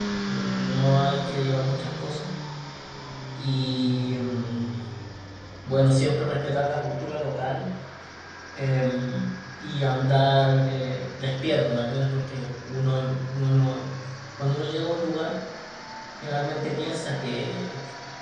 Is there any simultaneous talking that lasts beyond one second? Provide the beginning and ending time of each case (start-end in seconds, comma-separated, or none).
none